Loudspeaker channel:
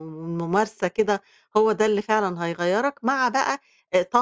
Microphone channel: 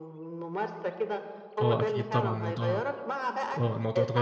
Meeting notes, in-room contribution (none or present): present